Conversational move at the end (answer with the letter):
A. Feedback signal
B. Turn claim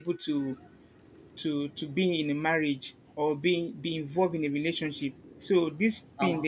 B